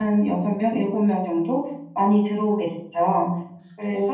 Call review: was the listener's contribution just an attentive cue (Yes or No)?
No